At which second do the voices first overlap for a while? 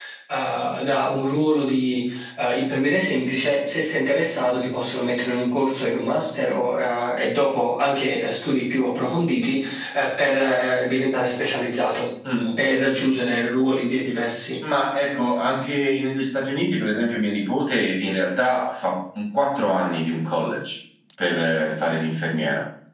none

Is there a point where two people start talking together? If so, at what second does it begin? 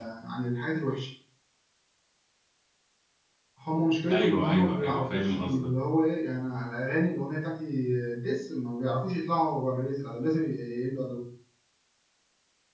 4.1 s

